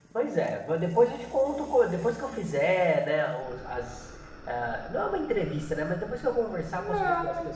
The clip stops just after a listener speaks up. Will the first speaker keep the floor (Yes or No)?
Yes